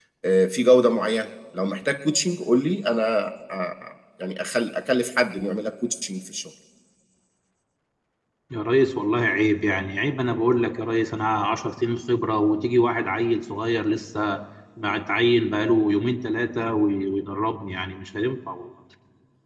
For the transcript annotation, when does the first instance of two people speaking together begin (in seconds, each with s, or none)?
none